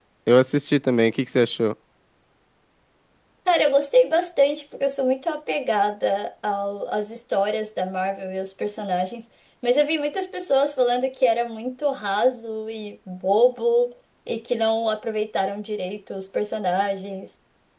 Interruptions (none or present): none